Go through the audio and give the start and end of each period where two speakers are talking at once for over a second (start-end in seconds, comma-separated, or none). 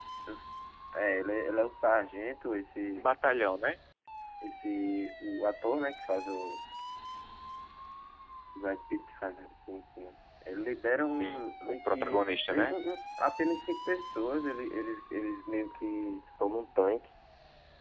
11.1-12.8